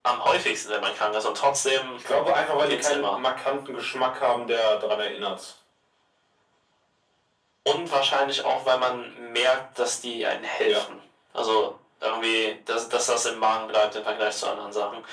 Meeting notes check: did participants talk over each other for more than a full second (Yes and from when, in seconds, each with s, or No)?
No